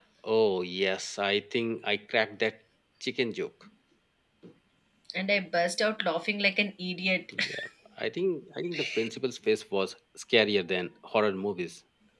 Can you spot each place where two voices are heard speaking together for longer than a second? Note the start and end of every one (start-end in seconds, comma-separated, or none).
none